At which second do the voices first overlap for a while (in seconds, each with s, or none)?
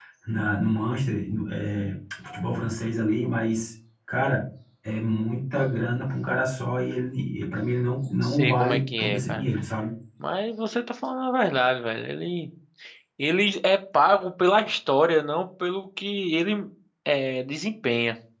8.2 s